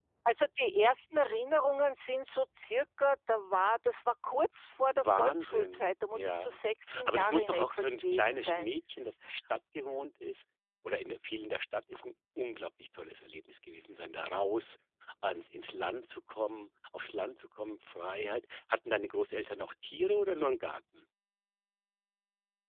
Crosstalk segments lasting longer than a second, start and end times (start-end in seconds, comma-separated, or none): 4.9-6.5, 7.0-8.7